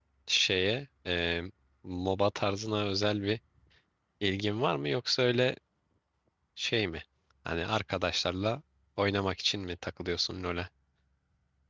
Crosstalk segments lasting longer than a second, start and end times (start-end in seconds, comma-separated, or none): none